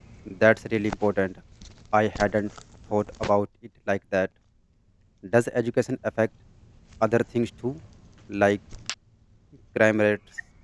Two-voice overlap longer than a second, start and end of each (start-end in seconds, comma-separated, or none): none